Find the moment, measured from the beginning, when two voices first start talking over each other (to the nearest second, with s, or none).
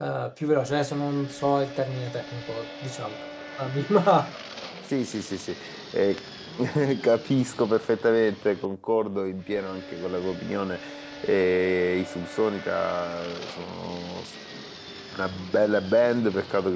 none